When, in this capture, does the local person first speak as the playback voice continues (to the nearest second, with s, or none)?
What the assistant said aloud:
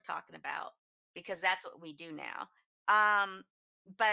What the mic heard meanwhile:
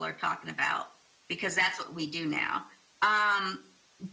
none